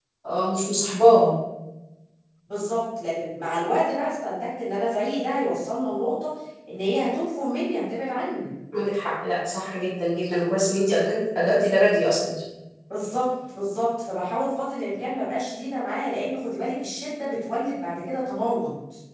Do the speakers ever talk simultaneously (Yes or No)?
No